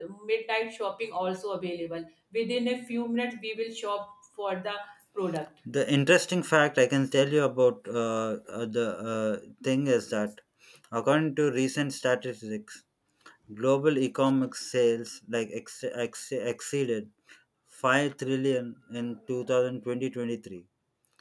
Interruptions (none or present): none